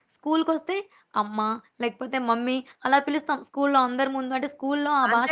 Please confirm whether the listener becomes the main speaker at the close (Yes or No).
Yes